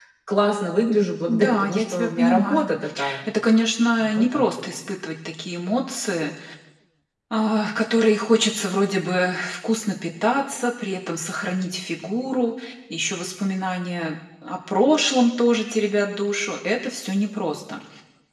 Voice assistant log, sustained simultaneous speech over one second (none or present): present